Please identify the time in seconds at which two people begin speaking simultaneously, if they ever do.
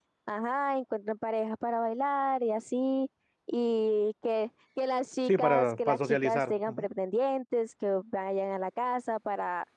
5.2 s

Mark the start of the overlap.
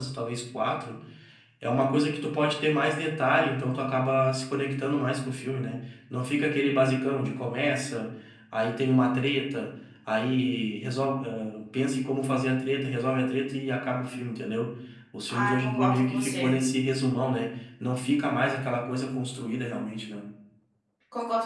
15.3 s

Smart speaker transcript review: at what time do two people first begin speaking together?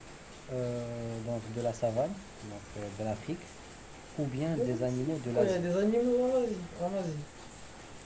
4.5 s

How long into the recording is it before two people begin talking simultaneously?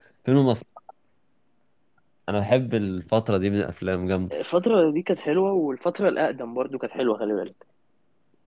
none

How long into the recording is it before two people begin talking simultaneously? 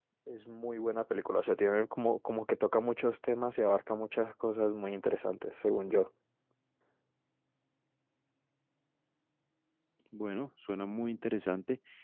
none

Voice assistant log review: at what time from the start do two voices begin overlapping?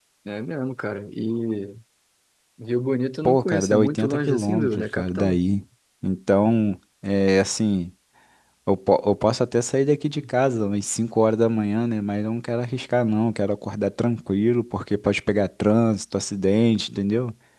3.2 s

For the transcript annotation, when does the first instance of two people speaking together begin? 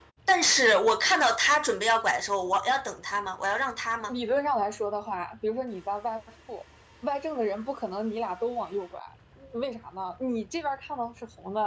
none

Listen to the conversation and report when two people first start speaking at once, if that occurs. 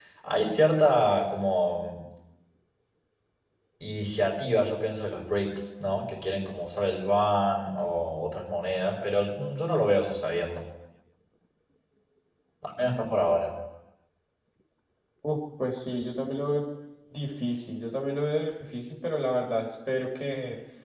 none

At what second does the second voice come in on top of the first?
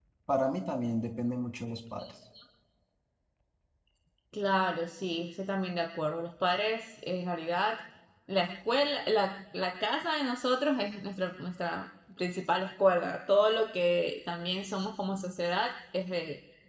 none

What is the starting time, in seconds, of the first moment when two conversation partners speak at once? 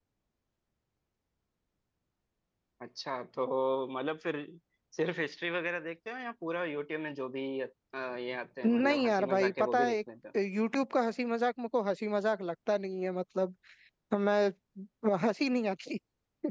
8.6 s

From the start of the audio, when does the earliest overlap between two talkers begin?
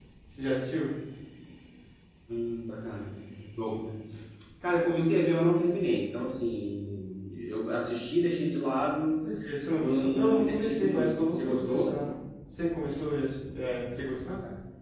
9.8 s

